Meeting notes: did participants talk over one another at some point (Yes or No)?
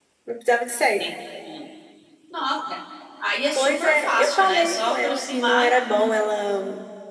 Yes